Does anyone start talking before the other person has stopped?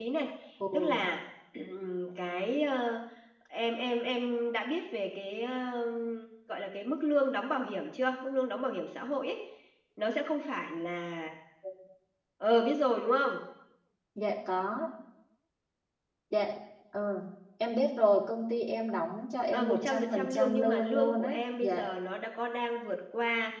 Yes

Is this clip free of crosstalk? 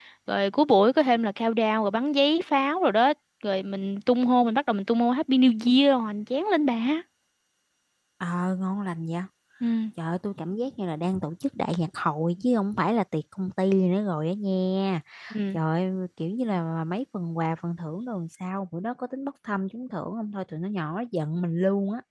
Yes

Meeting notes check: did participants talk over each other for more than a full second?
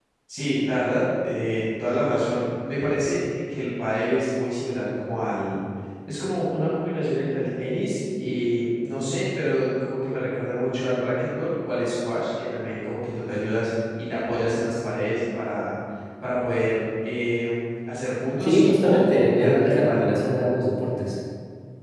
Yes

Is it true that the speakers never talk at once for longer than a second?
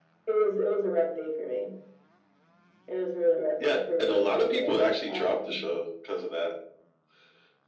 No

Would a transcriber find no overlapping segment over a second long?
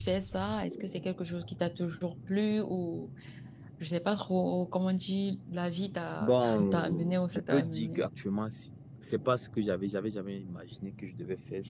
No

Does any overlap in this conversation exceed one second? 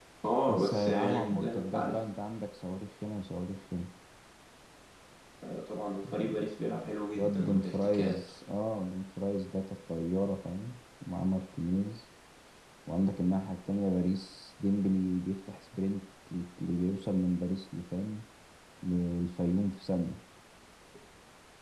Yes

